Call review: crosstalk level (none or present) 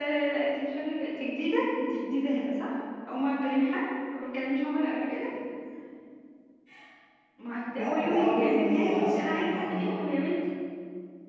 present